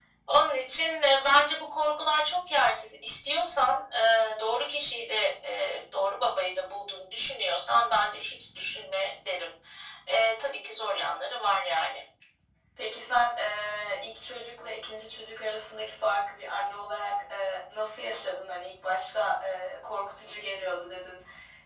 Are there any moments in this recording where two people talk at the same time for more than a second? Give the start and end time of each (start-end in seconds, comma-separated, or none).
none